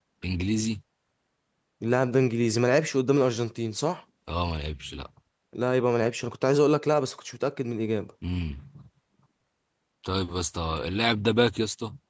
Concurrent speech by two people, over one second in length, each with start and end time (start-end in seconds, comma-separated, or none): none